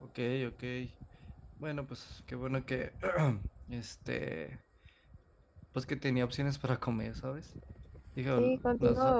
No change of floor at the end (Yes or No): No